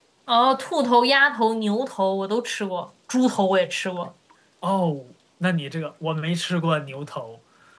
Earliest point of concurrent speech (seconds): none

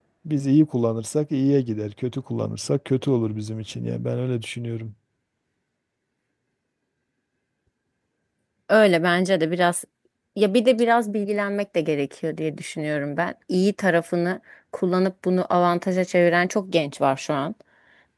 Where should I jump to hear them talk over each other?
none

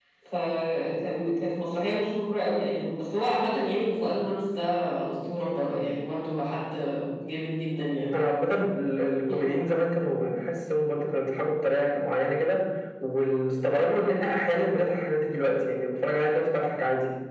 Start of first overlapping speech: none

